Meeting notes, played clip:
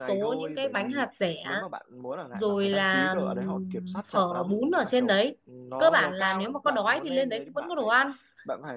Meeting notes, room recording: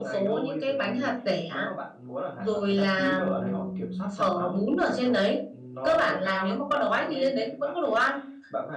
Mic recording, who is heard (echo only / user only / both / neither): echo only